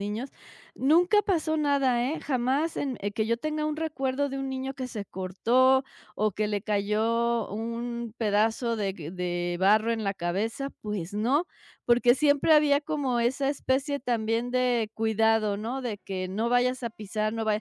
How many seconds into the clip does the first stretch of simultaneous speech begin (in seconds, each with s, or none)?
none